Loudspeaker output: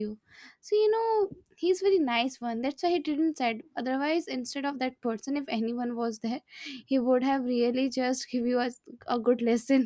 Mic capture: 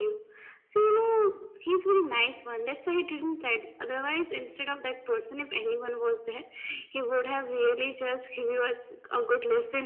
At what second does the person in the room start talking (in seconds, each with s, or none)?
none